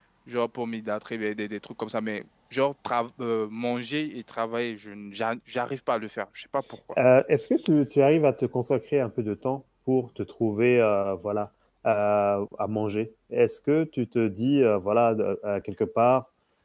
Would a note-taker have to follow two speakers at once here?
No

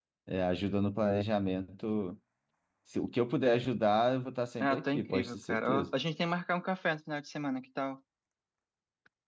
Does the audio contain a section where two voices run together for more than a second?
Yes, from 4.6 s

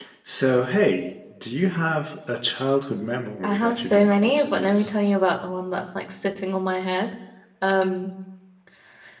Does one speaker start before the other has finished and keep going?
Yes, from 3.4 s

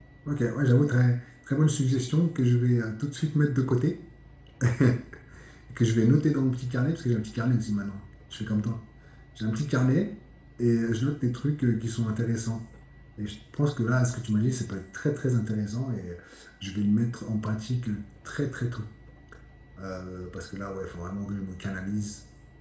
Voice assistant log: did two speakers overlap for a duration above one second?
No

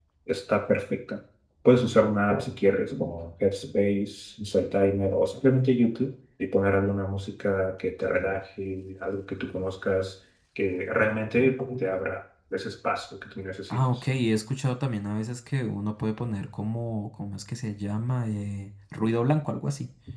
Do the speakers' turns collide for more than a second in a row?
No

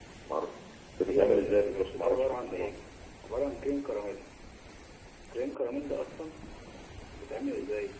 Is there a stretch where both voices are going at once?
Yes, from 1.0 s

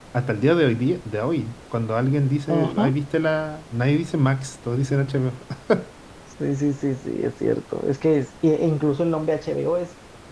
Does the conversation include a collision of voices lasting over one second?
No

